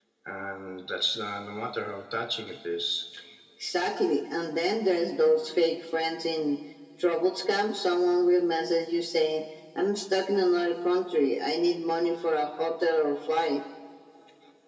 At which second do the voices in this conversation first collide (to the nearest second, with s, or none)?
none